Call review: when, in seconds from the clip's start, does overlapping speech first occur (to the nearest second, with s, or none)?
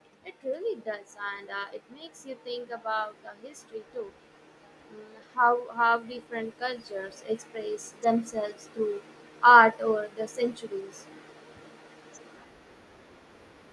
none